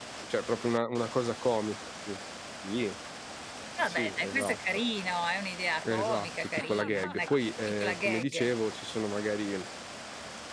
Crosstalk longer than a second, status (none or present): present